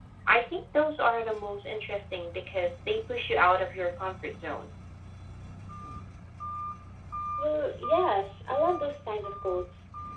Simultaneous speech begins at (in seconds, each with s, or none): none